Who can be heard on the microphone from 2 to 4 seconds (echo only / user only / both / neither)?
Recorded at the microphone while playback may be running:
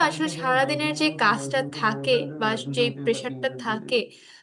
both